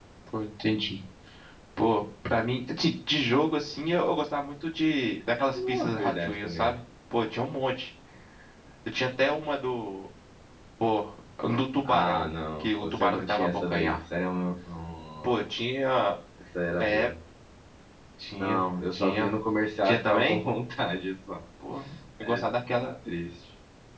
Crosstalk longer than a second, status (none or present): present